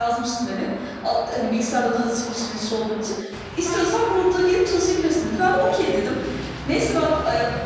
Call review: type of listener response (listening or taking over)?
listening